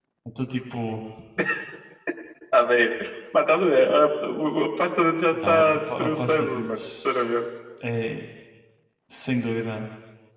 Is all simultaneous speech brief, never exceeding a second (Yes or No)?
No